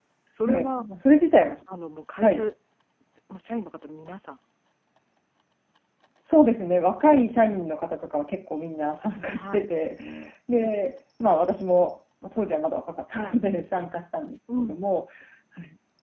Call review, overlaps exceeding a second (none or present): none